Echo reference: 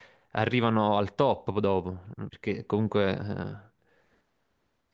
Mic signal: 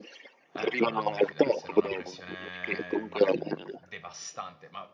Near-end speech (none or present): present